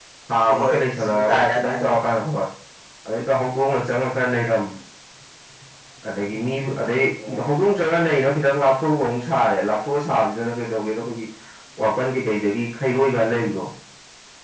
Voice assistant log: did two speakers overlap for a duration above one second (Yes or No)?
Yes